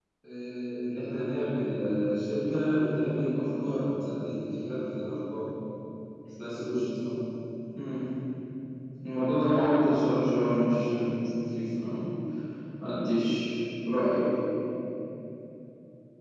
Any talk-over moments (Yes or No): No